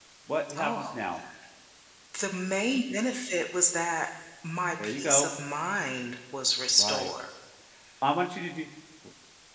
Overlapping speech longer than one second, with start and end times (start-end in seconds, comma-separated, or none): none